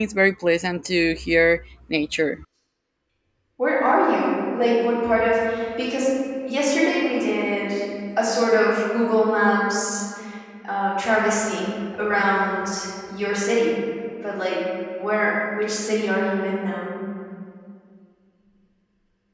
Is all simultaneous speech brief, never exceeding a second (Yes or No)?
Yes